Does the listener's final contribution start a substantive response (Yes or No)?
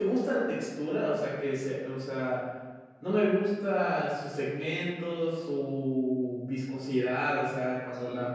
No